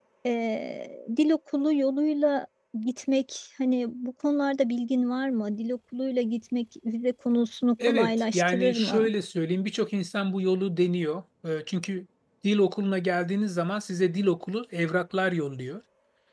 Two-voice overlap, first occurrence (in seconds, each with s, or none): 7.8 s